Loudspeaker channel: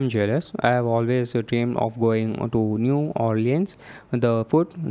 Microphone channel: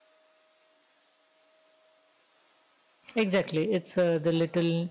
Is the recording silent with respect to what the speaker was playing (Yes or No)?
Yes